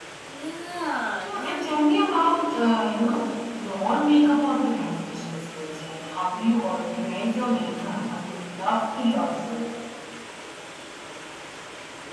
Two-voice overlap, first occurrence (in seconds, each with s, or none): 1.2 s